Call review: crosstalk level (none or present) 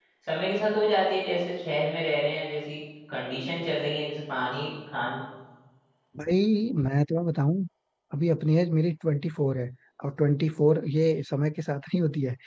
none